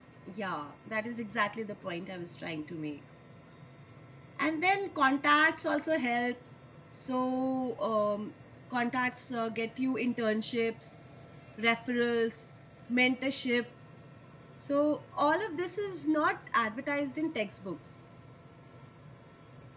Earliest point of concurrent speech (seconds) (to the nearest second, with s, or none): none